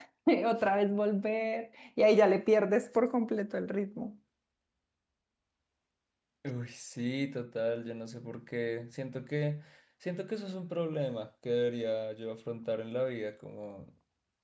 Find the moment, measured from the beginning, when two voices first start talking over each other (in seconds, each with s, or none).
none